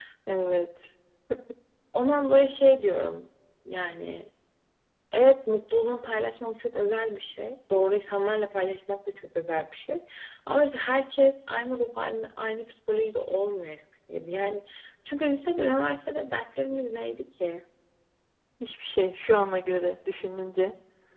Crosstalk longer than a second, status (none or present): none